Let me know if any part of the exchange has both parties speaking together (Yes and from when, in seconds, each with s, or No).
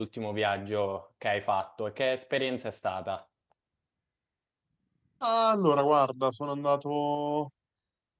No